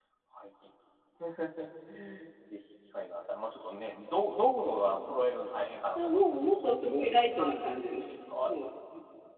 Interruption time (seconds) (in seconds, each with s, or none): 6.0 s